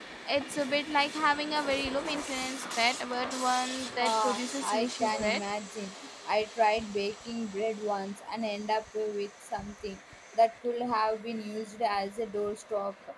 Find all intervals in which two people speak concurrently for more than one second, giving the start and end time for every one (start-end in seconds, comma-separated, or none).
4.0-5.4